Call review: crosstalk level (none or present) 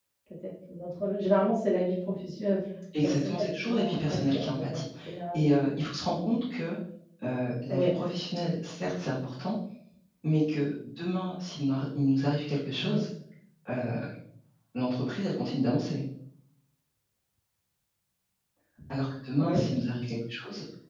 present